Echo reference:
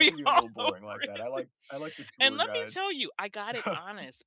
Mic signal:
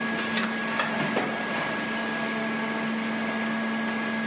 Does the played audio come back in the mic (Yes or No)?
No